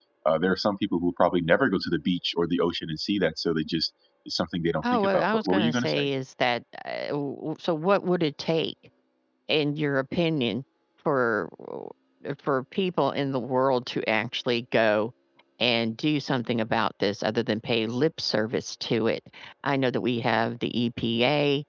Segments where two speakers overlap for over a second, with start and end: 4.8-6.1

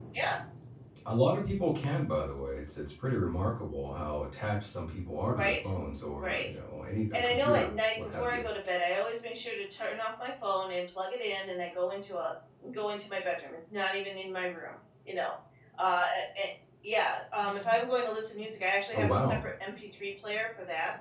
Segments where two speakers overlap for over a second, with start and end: 7.1-8.4

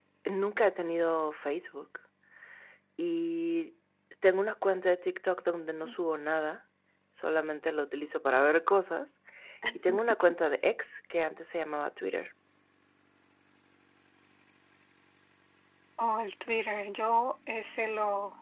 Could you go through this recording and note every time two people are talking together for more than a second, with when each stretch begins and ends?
none

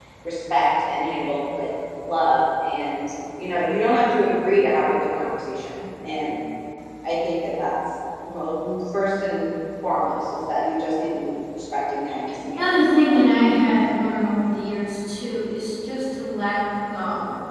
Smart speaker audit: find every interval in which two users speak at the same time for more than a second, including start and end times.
none

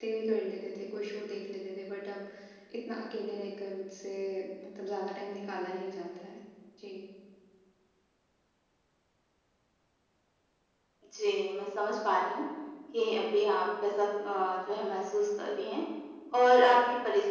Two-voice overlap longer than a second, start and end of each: none

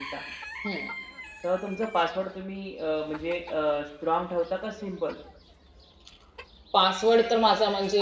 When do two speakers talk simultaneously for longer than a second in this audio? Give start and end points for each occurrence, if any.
none

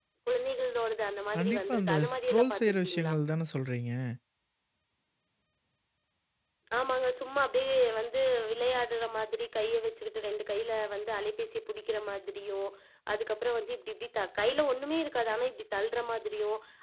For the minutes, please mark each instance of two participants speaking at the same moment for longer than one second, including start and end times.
1.4-3.1

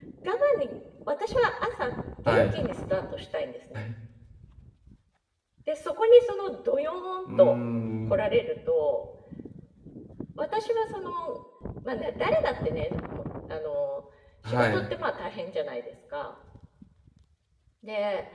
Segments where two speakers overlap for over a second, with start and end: none

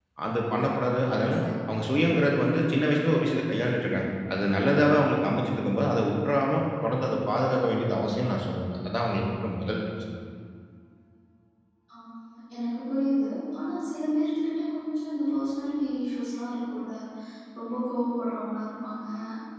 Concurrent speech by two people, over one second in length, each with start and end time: none

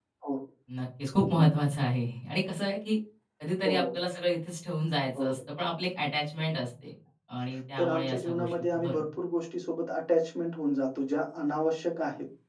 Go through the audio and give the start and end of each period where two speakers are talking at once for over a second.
7.8-9.0

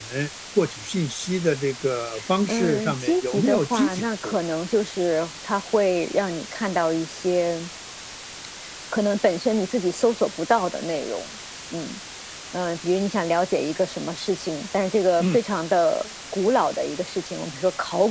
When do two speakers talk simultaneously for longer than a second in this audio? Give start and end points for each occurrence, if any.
2.5-4.3

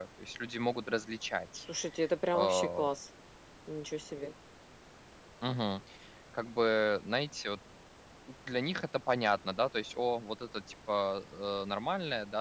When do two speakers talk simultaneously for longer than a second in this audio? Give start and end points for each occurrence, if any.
none

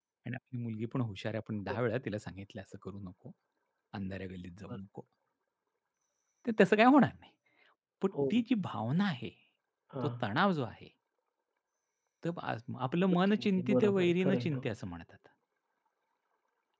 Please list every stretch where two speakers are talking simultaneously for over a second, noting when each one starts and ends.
13.3-14.7

